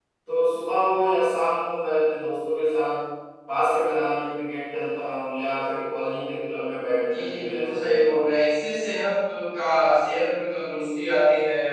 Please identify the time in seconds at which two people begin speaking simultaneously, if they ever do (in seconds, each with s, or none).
7.0 s